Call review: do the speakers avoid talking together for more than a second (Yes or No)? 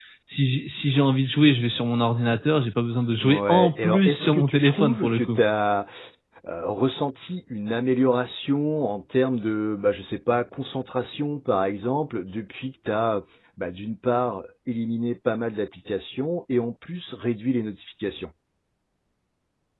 No